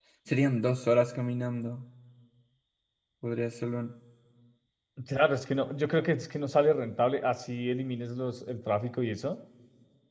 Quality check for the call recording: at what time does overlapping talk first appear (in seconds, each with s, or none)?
none